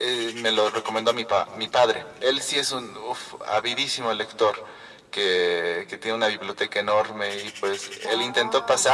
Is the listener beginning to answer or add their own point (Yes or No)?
No